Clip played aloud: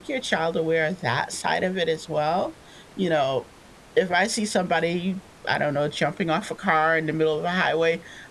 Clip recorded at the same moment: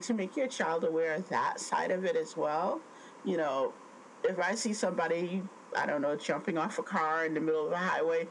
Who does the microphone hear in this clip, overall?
echo only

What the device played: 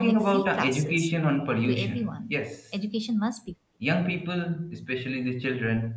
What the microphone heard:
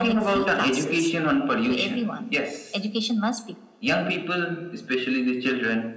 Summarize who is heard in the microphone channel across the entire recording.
echo only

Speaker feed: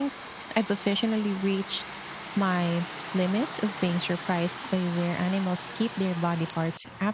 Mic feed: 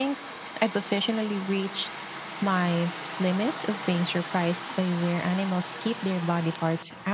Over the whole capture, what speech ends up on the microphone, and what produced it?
echo only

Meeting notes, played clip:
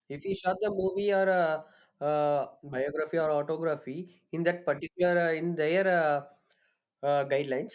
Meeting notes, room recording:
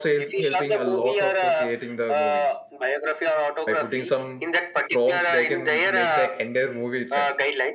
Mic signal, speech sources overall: both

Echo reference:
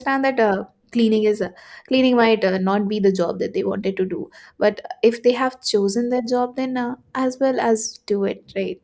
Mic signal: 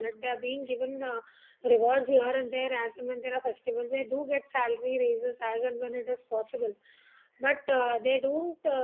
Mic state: user only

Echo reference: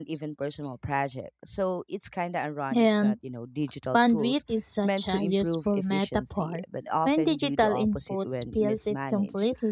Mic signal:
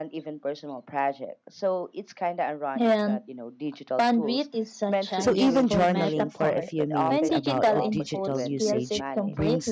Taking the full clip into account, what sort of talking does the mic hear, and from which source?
both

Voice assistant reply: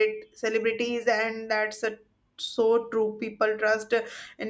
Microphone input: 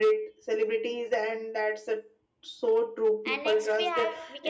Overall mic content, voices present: both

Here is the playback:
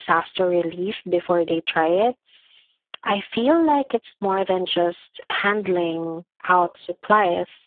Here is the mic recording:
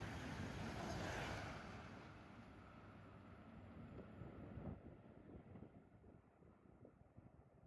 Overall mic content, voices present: neither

